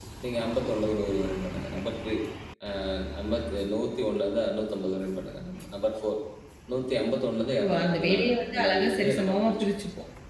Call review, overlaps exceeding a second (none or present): present